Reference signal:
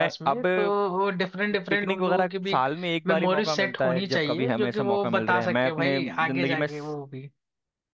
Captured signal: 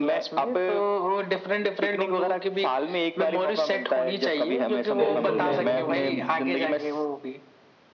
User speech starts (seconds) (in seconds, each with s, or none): 5.0 s